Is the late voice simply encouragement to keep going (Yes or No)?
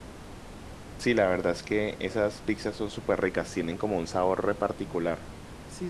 No